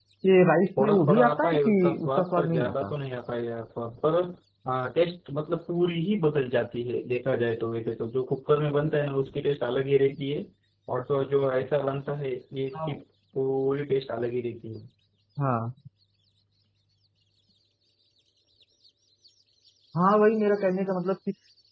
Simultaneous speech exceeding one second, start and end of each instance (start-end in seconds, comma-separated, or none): 0.8-2.9